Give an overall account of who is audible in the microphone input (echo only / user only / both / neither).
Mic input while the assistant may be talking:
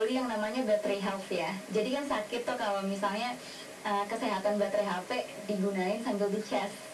echo only